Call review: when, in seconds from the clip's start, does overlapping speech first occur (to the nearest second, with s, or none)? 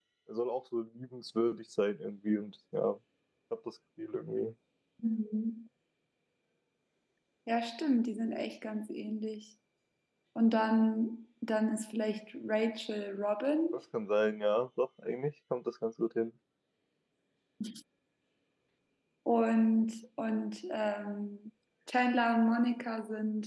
none